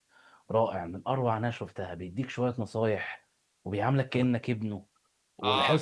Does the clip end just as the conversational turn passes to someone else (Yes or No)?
Yes